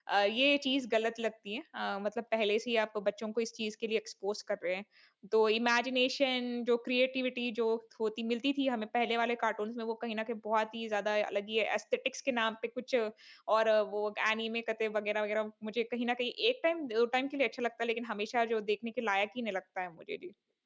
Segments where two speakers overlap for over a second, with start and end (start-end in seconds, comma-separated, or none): none